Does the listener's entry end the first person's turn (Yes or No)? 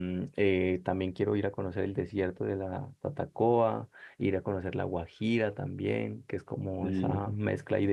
No